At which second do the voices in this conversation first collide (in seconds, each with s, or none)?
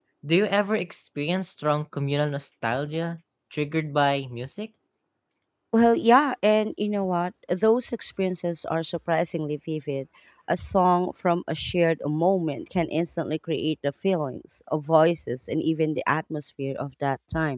none